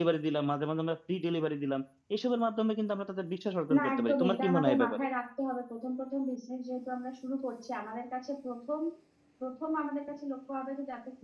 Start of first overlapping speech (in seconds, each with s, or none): 3.7 s